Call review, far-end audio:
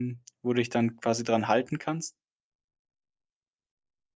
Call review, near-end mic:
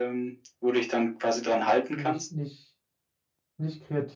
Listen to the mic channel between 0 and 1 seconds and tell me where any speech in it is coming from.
echo only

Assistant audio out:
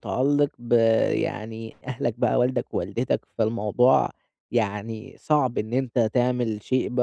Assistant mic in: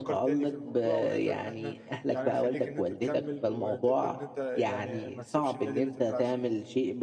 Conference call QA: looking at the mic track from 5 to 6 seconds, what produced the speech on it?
both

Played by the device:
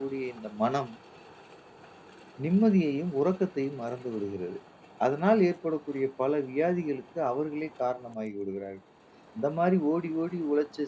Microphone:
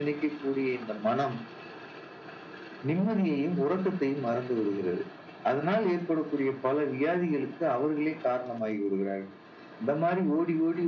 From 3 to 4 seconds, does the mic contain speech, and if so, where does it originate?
echo only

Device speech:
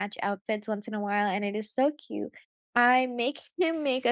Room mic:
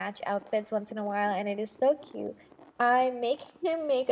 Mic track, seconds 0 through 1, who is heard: echo only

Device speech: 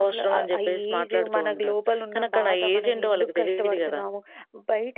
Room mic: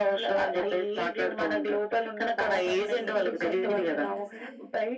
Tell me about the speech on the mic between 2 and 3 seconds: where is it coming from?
both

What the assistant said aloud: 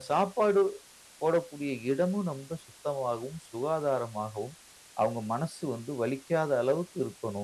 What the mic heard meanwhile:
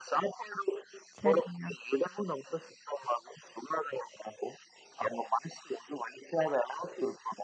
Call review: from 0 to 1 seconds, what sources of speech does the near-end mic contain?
echo only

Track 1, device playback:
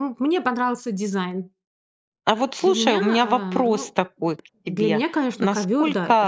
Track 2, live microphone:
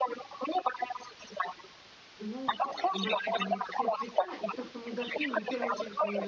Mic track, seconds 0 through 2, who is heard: echo only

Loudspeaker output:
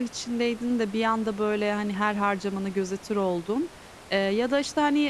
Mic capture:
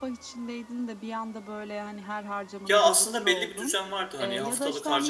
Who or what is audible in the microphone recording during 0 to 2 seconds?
echo only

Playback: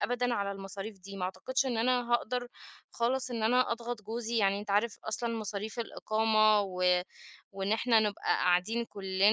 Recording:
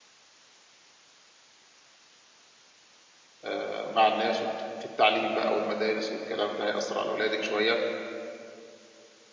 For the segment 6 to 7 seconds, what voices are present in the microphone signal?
user only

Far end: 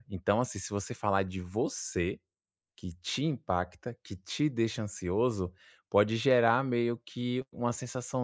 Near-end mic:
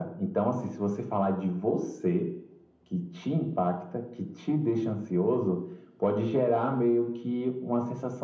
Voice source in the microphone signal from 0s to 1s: echo only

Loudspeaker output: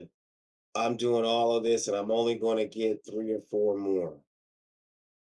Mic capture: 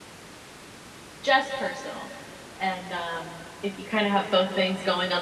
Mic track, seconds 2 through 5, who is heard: user only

